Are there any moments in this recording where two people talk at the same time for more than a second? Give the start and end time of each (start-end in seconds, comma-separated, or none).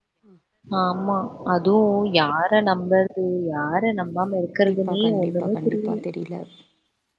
4.4-6.0